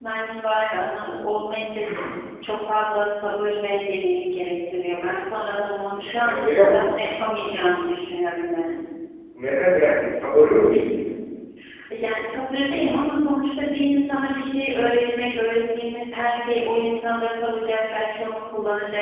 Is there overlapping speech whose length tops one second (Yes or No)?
No